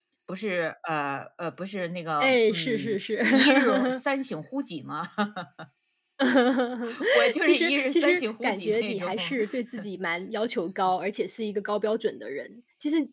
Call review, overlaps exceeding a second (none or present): present